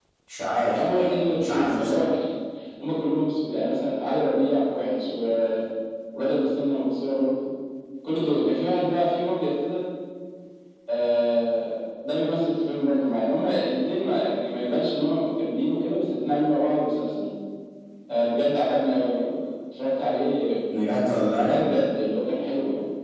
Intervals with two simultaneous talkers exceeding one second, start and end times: 0.8-2.1

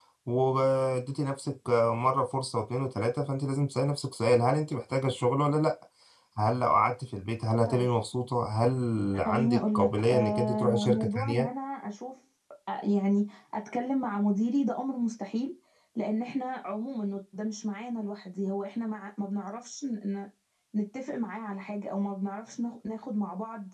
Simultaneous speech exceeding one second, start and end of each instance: 9.2-11.5

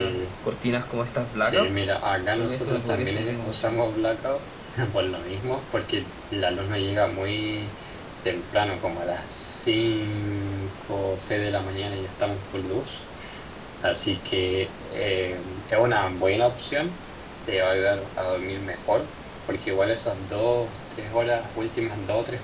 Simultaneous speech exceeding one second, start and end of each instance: 2.3-3.8

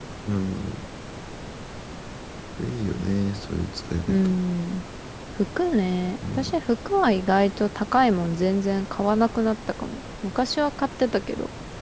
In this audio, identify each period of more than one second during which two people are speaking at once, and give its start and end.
none

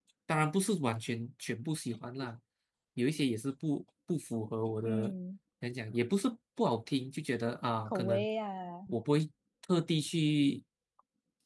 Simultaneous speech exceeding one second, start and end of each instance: none

